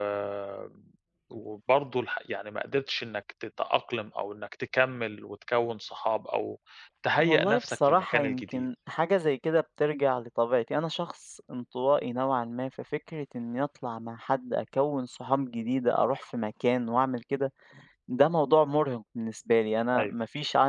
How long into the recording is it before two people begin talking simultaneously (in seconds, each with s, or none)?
7.2 s